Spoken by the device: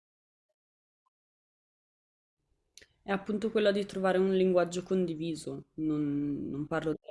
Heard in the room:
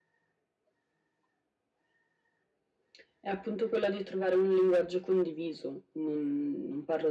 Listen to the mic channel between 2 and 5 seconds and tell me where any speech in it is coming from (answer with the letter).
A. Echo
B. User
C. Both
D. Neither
A